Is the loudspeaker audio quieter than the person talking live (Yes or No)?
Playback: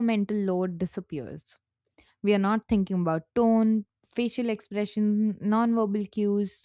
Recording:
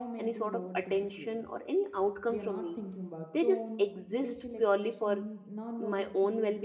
Yes